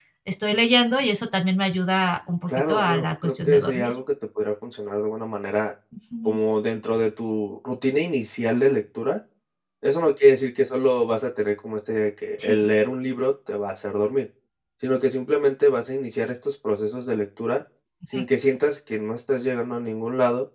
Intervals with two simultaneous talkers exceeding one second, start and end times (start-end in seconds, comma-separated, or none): 2.5-3.9